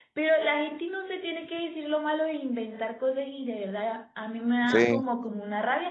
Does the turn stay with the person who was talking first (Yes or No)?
Yes